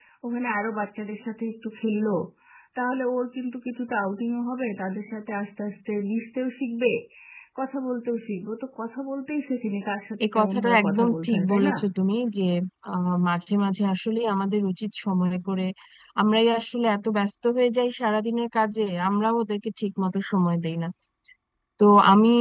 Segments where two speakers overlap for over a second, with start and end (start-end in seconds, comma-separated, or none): 10.2-11.7